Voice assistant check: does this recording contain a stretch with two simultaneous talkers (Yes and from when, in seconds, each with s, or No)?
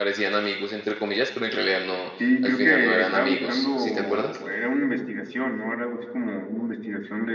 Yes, from 2.4 s